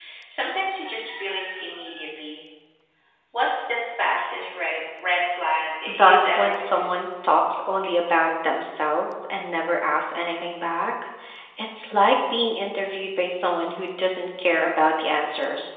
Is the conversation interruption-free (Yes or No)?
No